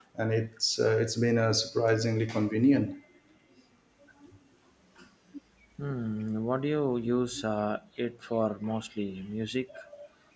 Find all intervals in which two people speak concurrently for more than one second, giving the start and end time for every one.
none

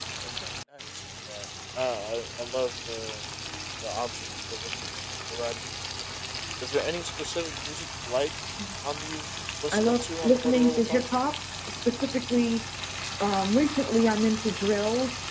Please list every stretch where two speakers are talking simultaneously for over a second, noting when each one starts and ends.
9.7-11.0

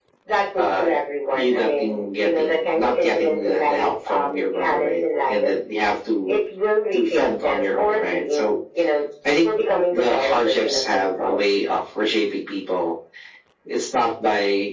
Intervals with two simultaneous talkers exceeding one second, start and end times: 1.3-5.5, 6.9-8.5, 9.9-11.7

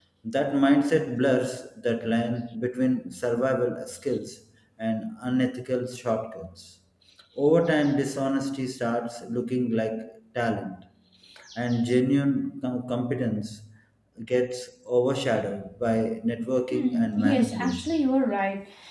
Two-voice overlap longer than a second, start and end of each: 16.7-17.9

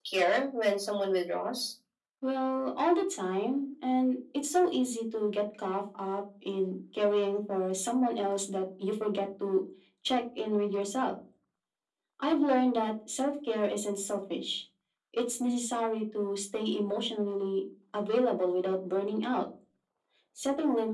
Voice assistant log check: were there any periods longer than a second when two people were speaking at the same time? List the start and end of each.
none

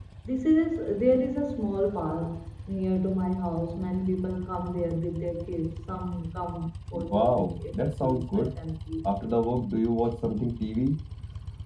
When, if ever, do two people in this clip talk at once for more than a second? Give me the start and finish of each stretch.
6.9-8.5

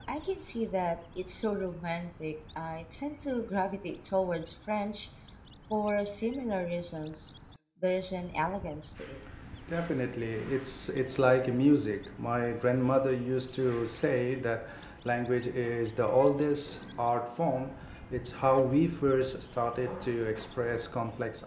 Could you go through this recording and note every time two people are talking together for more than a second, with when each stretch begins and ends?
none

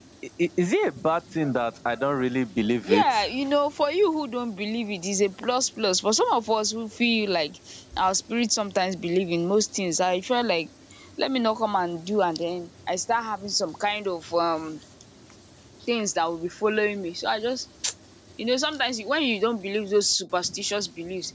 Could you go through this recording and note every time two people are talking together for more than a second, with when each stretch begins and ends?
none

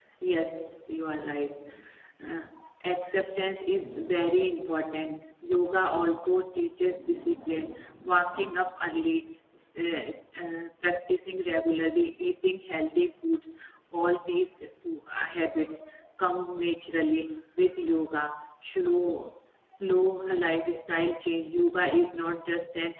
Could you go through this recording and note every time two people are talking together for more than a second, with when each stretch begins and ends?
none

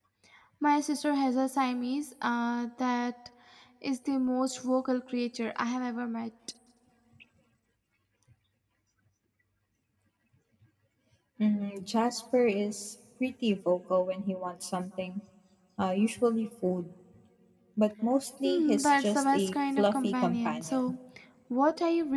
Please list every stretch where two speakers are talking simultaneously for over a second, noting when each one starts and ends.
18.4-20.8

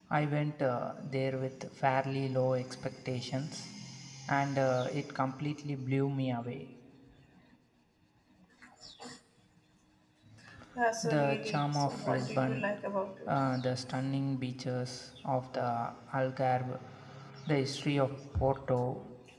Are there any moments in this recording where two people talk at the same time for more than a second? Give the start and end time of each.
11.0-12.7

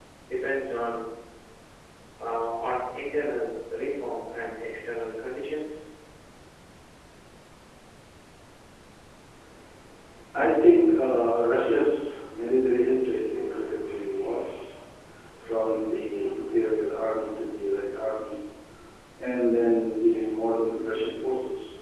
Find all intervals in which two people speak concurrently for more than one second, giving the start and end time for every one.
none

